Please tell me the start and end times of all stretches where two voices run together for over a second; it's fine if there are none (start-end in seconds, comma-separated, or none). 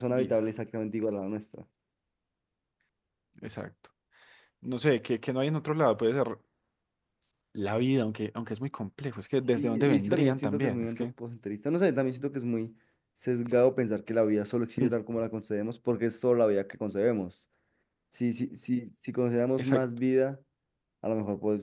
9.6-11.1